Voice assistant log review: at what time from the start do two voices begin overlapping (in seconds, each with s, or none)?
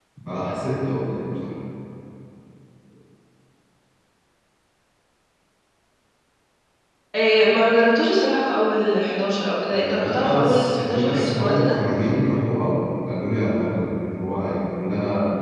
9.7 s